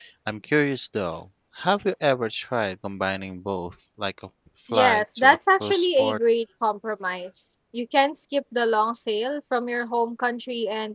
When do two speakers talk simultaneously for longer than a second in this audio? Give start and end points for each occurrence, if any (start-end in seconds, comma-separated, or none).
4.7-6.2